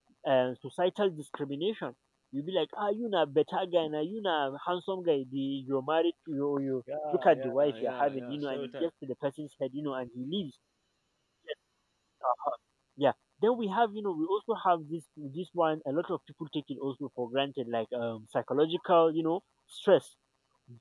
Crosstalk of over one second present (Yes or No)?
Yes